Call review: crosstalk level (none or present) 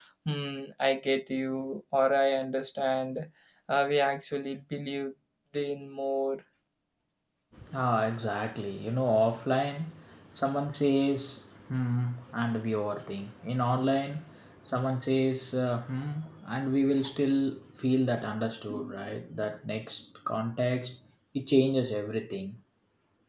none